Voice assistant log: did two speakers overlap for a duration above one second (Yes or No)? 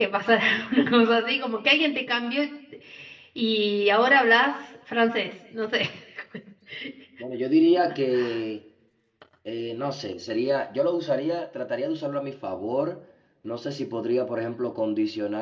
No